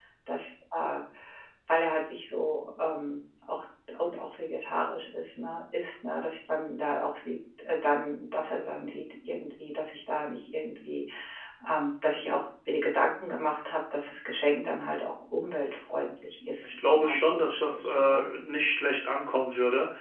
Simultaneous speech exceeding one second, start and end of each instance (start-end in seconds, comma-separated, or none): 16.6-18.2